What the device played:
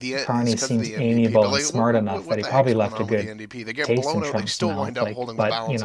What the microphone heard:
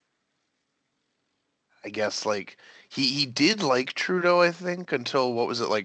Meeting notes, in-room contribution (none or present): present